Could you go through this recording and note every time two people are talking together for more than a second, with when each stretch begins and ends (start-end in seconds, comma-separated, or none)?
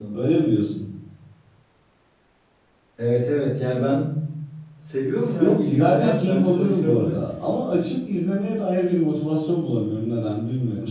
5.4-7.2